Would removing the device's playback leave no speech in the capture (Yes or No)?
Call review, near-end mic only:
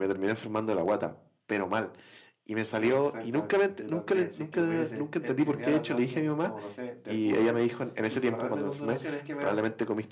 No